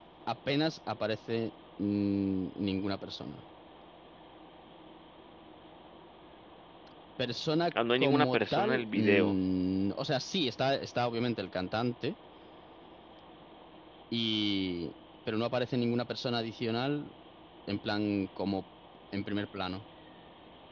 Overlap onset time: 8.0 s

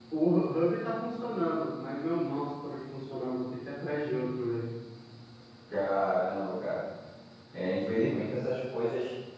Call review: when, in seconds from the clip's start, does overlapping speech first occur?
none

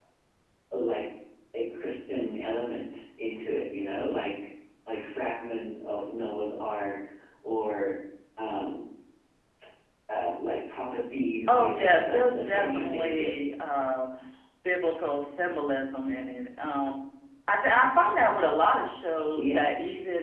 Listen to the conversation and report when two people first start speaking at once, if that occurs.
11.5 s

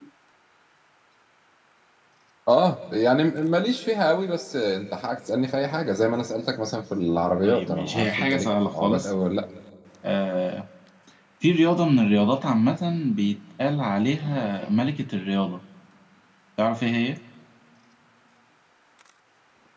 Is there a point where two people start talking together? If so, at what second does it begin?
7.4 s

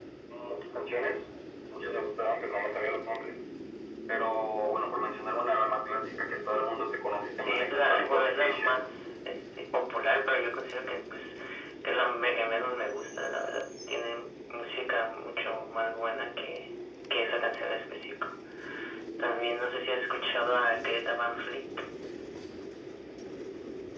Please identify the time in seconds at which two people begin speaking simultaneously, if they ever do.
7.4 s

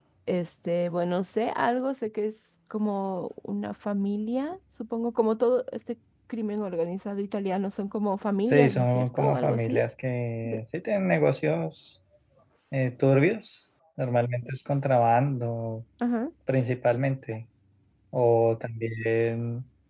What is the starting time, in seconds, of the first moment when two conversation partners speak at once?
8.5 s

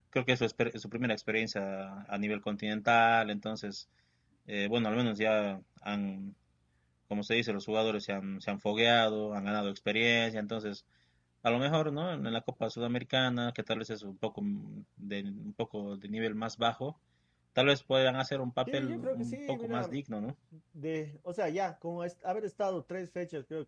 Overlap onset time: 18.7 s

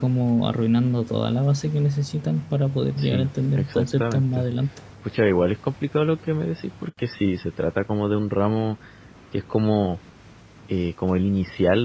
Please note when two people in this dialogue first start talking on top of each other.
3.0 s

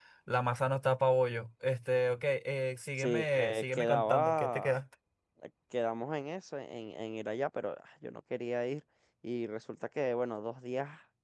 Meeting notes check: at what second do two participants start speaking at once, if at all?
3.0 s

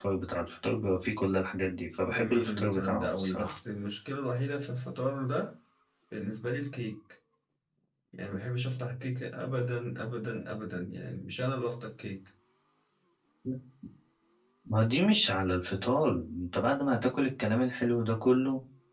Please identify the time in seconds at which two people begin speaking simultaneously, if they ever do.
2.1 s

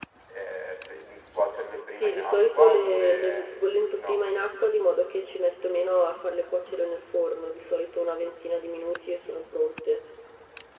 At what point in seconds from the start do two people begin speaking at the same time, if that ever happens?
1.9 s

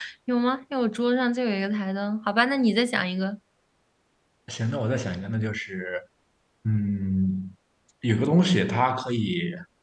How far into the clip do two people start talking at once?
none

